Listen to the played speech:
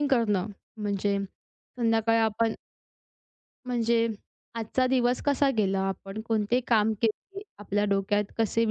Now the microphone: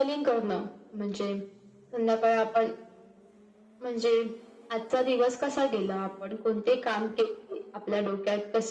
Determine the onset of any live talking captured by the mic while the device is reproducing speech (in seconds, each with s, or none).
none